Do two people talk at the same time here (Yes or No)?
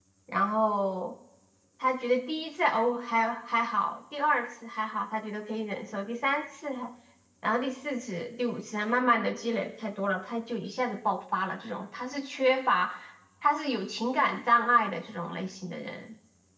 No